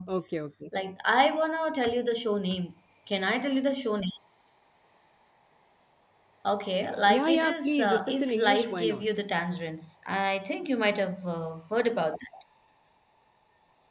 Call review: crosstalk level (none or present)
present